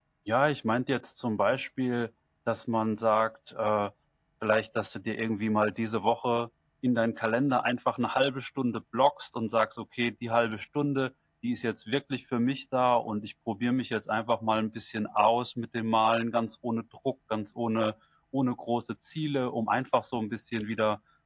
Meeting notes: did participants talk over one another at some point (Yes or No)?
No